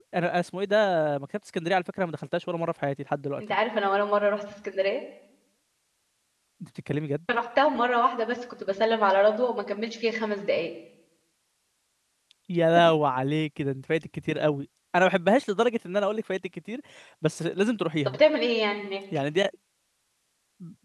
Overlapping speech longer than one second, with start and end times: none

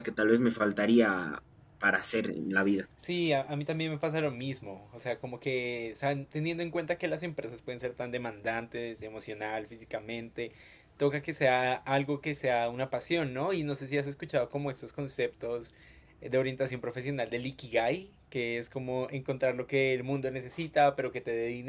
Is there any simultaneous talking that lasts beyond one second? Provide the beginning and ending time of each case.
none

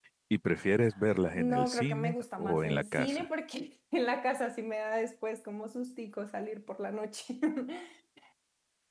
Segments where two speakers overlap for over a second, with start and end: 1.4-3.3

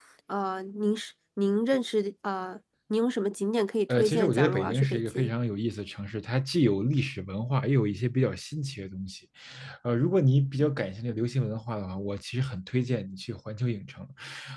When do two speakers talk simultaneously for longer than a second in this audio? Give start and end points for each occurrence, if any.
3.9-5.3

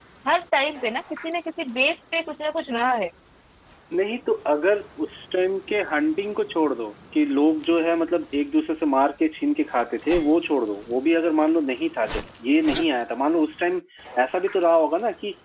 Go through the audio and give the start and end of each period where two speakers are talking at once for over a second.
none

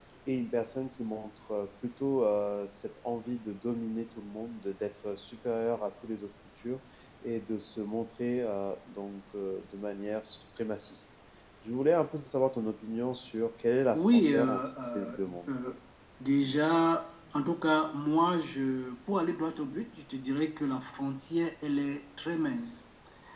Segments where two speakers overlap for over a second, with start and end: 13.9-15.5

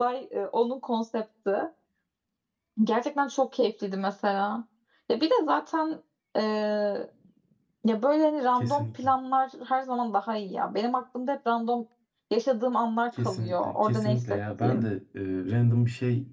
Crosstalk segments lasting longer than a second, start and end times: 13.2-14.9

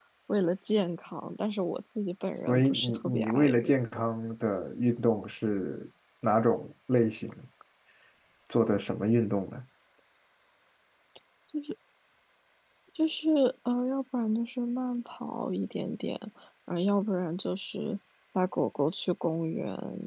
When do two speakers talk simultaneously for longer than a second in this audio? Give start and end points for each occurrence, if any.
2.3-4.0

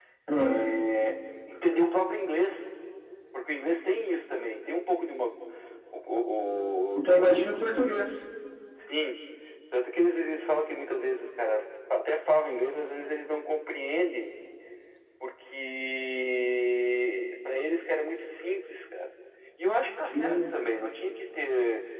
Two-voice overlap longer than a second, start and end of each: none

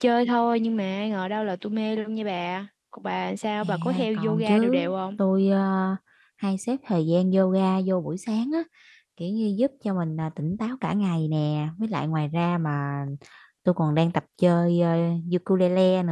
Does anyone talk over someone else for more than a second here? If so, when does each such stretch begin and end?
3.6-4.9

